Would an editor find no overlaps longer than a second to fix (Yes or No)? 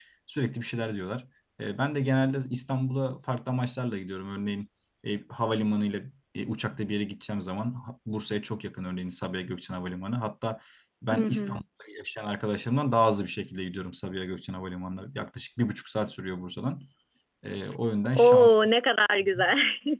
Yes